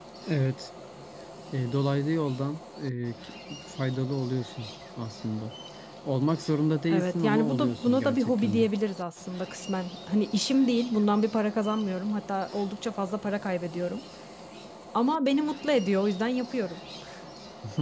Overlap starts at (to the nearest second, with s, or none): 7 s